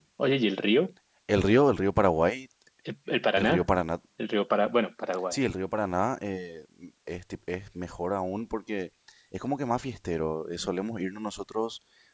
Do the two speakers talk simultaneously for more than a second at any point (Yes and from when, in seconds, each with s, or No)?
No